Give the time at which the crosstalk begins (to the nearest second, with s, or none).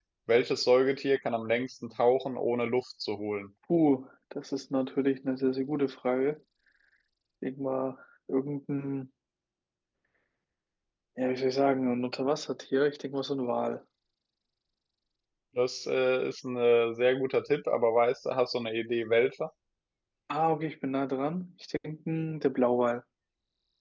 none